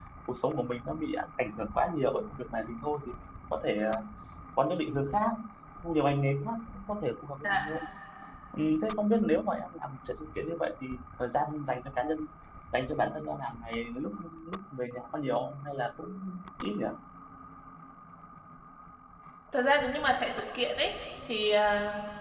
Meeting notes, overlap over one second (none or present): none